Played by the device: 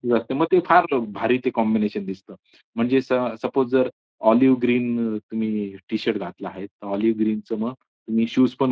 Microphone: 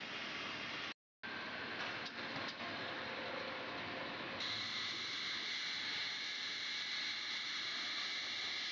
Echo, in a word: none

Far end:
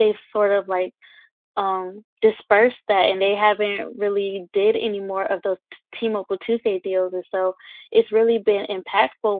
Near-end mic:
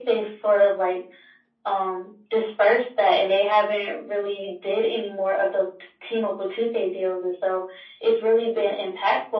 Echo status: present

